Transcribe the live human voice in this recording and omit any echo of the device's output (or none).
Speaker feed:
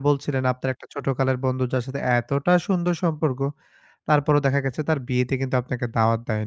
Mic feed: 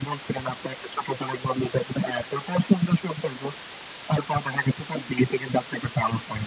none